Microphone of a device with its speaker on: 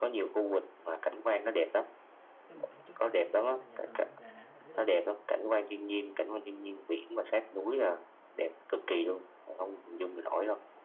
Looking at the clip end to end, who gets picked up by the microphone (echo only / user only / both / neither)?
both